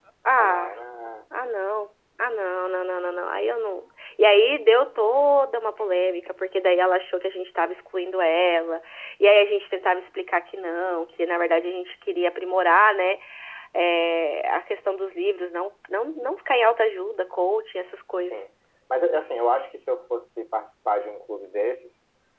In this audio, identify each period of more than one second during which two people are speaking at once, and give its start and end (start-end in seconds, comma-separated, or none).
none